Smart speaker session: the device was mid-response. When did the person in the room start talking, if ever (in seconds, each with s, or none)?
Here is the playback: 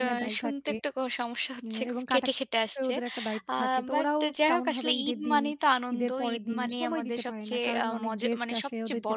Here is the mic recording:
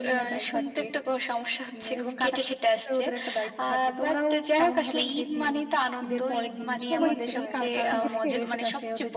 6.9 s